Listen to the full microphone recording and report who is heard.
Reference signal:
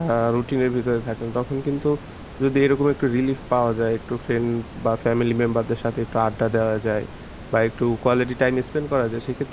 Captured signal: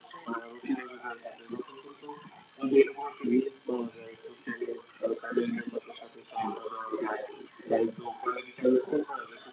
echo only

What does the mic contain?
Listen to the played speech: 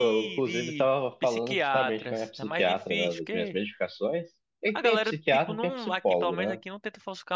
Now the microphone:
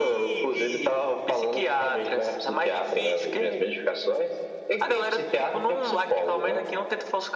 echo only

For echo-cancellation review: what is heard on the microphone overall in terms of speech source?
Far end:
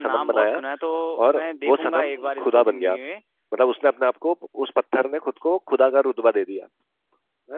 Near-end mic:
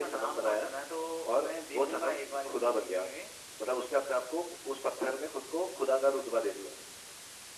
echo only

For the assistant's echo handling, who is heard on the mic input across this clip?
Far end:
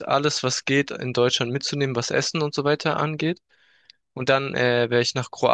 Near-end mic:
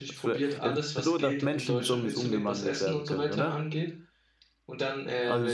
both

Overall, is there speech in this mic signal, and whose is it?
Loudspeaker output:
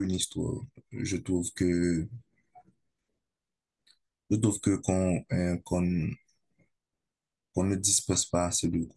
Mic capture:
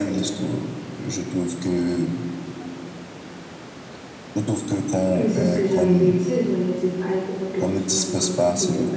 both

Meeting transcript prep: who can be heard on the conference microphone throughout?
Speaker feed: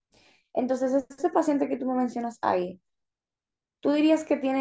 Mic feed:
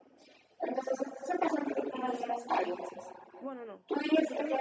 both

